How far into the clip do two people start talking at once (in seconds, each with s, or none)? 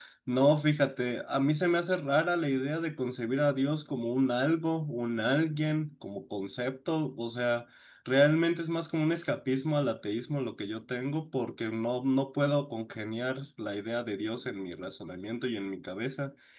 none